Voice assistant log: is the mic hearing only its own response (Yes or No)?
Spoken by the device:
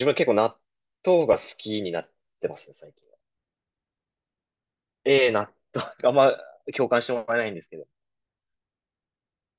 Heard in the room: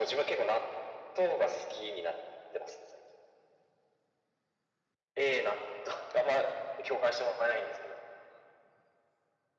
Yes